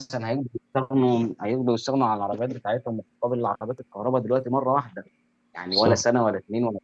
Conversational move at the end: listening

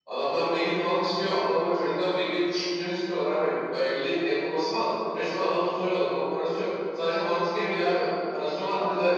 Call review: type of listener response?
listening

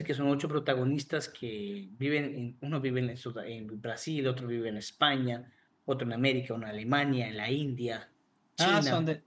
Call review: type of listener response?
taking over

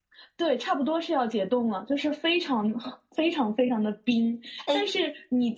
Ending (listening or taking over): listening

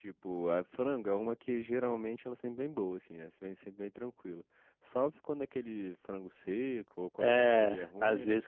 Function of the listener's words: taking over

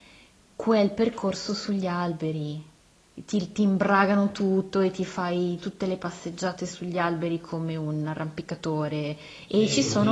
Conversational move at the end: taking over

